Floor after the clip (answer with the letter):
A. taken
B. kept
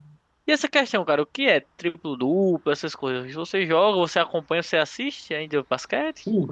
A